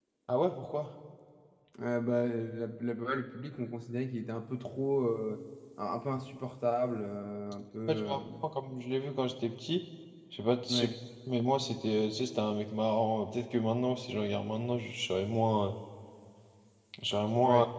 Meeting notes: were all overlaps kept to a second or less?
Yes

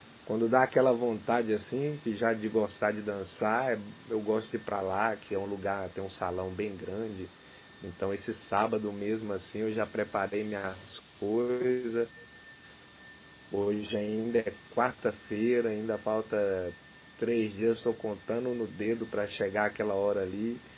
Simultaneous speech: No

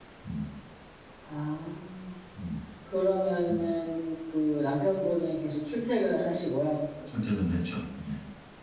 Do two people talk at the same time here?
No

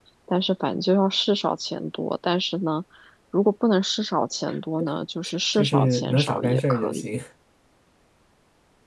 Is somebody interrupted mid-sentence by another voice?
Yes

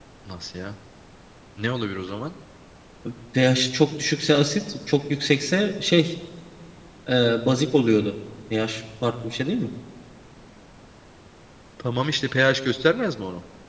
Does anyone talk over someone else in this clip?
No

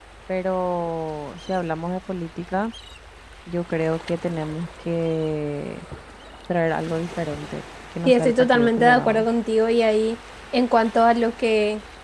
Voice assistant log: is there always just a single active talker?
No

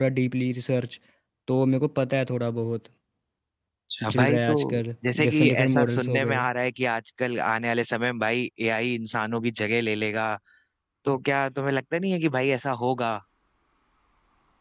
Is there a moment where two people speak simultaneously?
Yes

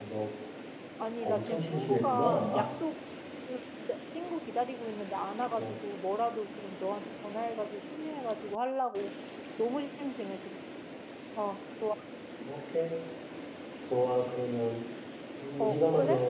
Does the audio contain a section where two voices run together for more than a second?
Yes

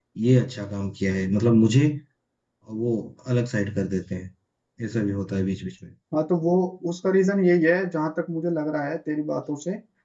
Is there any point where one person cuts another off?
No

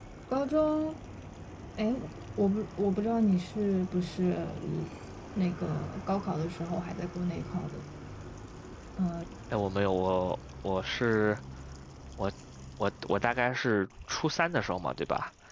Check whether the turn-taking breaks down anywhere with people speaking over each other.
No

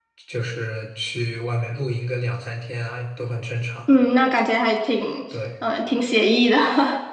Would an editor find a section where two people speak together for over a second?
No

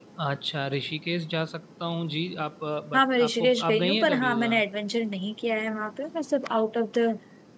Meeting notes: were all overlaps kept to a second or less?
No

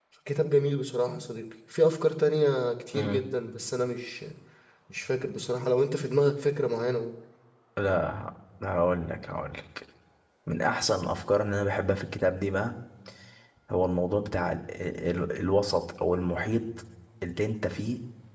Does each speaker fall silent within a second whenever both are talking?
Yes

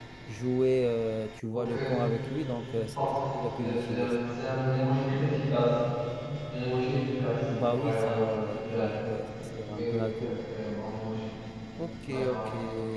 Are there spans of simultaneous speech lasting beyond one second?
Yes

